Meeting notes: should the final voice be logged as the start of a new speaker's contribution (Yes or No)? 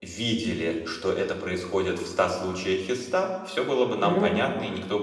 No